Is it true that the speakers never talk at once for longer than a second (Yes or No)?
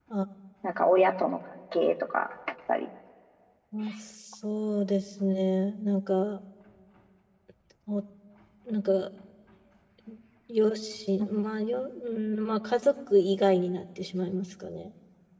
Yes